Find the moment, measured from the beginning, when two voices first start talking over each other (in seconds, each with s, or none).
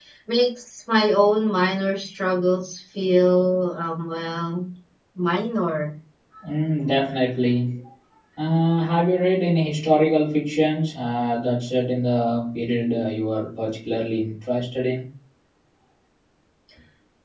none